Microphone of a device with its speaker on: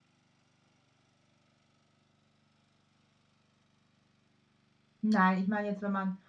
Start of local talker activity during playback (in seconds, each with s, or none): 5.0 s